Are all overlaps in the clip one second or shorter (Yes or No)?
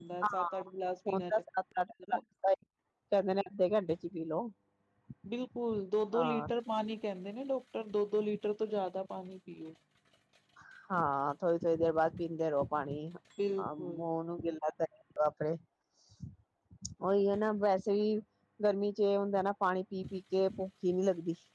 Yes